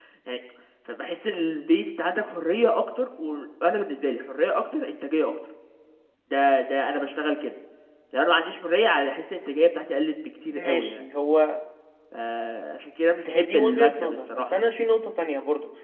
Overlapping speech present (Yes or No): Yes